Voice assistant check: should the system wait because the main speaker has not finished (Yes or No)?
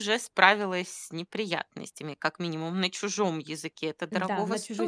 No